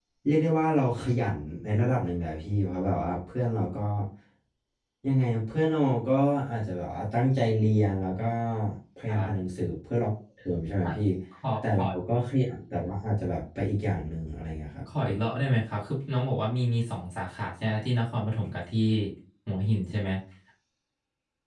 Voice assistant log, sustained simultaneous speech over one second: none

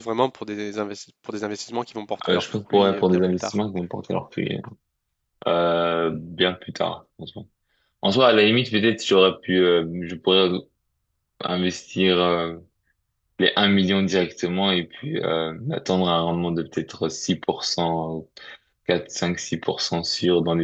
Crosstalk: present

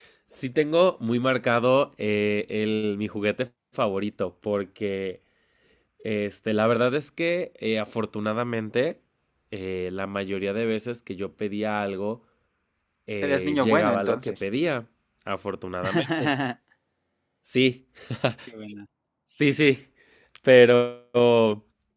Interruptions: present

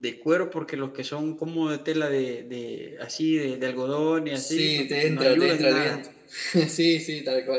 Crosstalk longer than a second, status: present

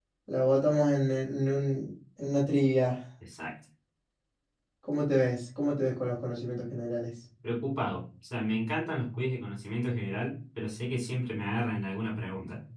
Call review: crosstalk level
none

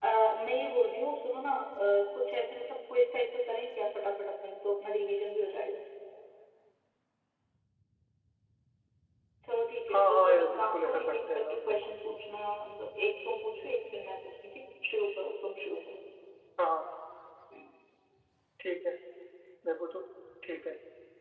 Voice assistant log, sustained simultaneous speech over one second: present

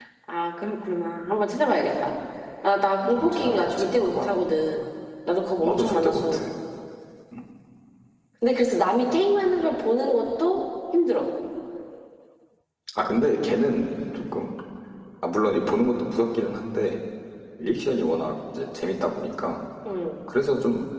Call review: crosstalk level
present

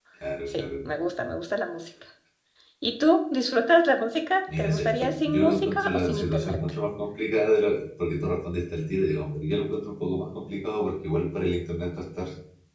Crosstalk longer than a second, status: present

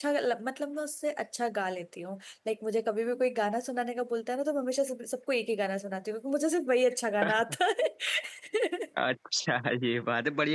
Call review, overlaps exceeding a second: none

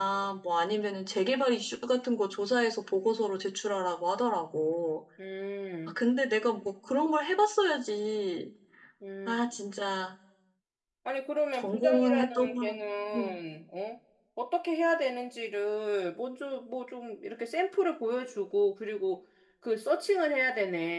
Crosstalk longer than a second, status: present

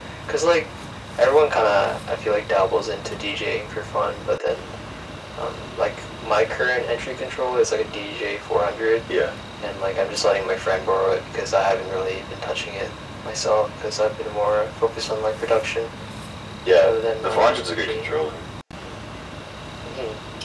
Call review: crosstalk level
present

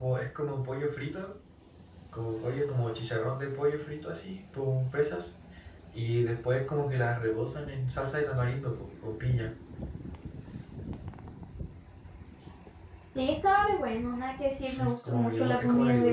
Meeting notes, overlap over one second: present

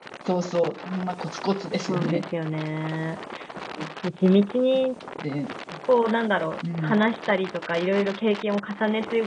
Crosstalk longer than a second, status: none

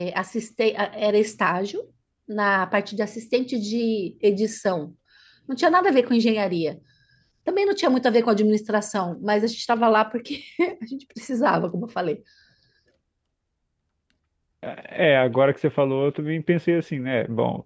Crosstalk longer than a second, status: none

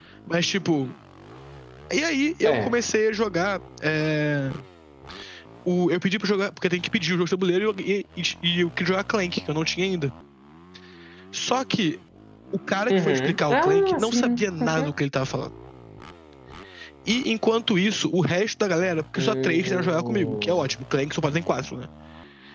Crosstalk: present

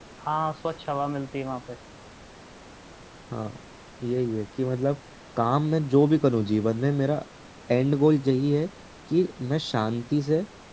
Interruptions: none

